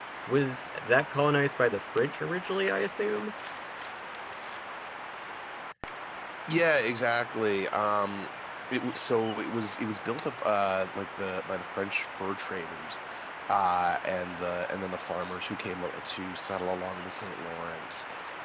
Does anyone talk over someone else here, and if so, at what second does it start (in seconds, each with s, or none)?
none